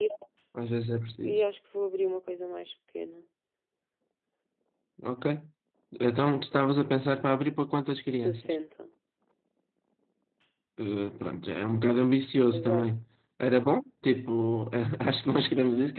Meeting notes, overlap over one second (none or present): none